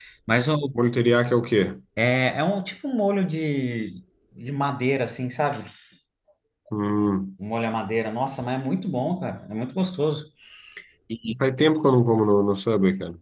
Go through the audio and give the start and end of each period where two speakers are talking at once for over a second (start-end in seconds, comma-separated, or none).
none